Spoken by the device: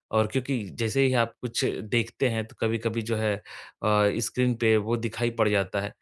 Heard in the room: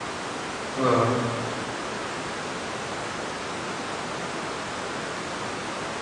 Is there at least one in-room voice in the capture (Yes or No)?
Yes